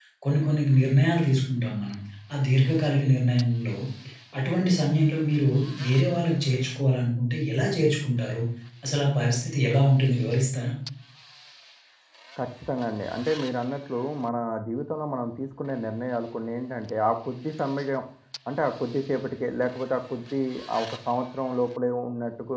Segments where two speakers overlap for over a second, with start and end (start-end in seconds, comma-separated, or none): none